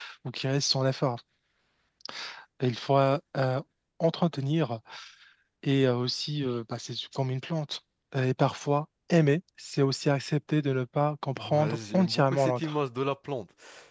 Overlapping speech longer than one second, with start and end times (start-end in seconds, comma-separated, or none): 11.4-12.7